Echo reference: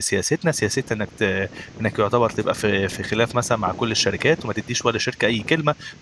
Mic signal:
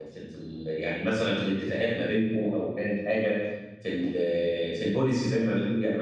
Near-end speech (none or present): present